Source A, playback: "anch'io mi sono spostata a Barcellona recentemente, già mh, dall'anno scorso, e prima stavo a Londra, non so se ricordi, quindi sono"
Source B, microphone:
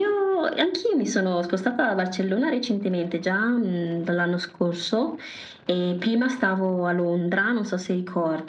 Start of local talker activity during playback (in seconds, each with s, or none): none